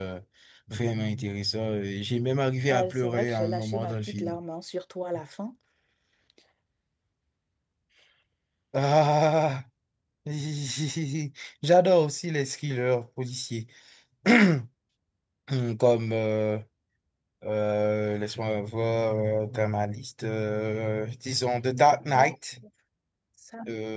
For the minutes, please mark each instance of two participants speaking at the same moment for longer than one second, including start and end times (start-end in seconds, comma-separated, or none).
2.7-4.4